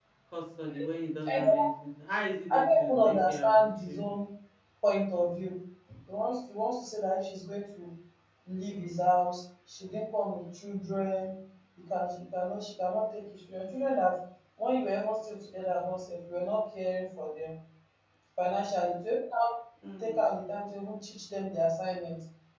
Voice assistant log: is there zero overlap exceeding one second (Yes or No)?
No